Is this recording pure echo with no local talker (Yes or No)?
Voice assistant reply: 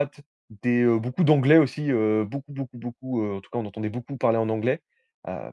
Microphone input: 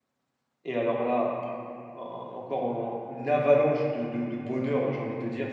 No